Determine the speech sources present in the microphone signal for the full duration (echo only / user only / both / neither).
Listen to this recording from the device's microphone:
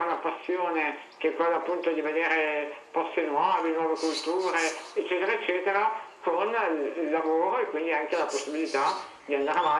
echo only